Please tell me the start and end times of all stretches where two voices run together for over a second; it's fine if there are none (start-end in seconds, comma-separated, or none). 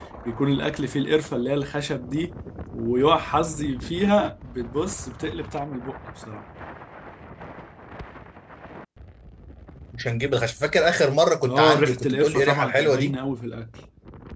11.4-13.1